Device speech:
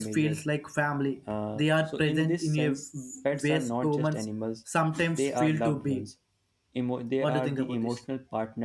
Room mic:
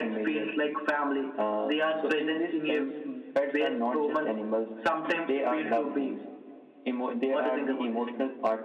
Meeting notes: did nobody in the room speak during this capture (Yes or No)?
Yes